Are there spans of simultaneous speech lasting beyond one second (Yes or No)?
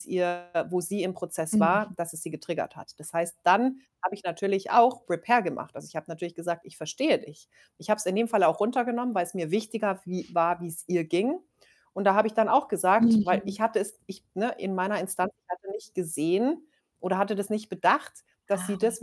No